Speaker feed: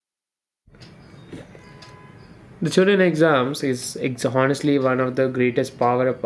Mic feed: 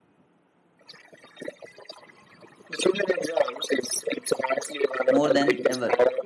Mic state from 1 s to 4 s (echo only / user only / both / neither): echo only